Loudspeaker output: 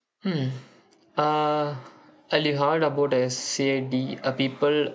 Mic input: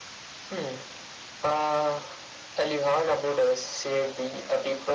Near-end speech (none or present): none